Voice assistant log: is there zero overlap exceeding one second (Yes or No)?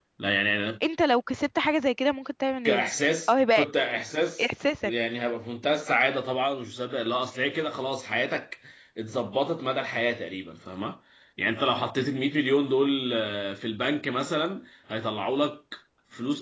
Yes